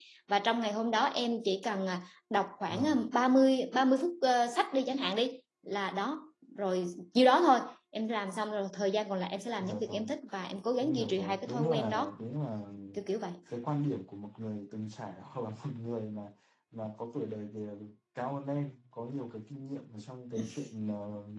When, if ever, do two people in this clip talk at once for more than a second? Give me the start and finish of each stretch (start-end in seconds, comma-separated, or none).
10.8-12.1